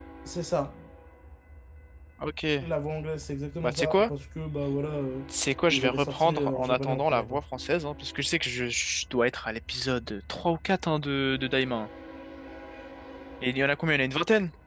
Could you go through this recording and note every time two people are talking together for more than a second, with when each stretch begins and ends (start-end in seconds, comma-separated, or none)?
5.7-7.4